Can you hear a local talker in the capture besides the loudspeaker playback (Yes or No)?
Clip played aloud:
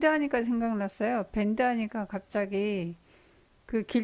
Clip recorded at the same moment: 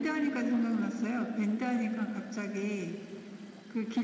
No